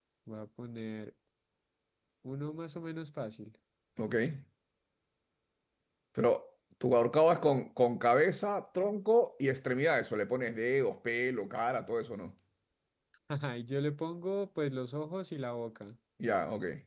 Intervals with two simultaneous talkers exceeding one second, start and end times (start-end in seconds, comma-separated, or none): none